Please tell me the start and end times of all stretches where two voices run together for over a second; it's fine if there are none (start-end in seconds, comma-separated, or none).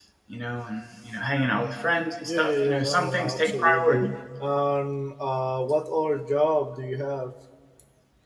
2.2-4.1